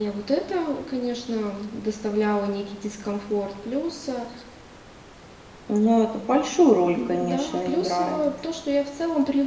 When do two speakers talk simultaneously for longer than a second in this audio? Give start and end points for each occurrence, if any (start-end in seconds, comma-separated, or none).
7.0-8.2